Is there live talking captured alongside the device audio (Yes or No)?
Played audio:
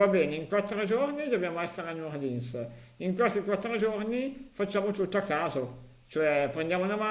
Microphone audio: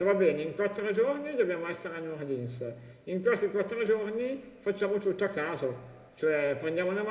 No